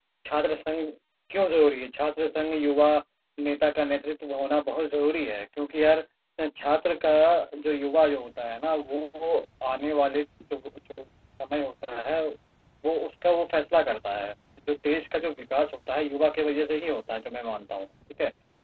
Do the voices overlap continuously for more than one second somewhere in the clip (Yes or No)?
No